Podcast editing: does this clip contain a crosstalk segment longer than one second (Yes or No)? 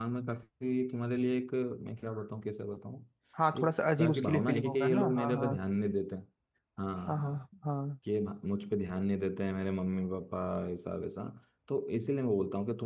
Yes